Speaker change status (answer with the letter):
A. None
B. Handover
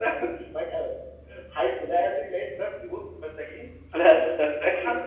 B